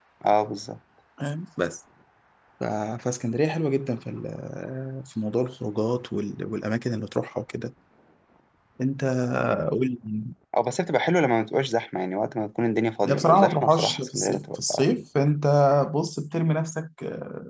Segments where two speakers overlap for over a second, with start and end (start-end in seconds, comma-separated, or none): 13.0-14.8